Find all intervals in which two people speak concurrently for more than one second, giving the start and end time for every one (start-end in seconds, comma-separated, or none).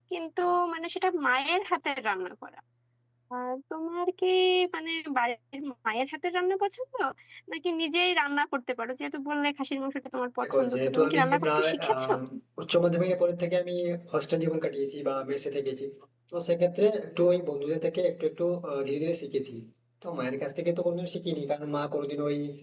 10.4-12.1